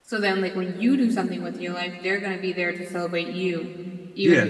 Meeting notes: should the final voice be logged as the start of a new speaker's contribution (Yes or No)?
Yes